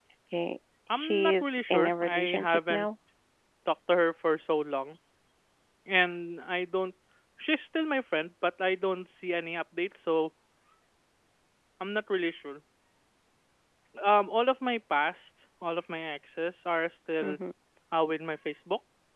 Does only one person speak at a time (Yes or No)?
No